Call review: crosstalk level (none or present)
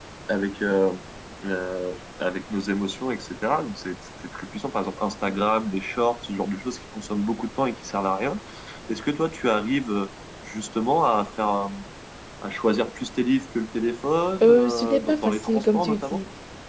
present